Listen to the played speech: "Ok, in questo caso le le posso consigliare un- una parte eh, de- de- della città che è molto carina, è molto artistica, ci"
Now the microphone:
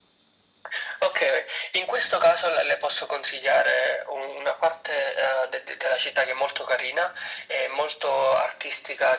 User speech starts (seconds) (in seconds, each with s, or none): none